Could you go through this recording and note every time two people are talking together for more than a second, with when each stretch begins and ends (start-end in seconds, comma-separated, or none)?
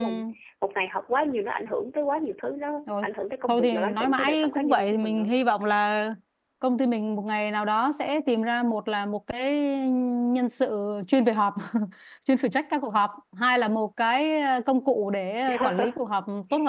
3.5-5.3